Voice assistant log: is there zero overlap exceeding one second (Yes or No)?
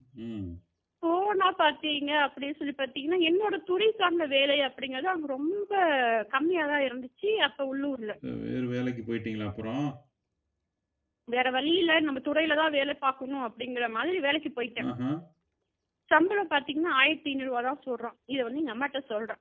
Yes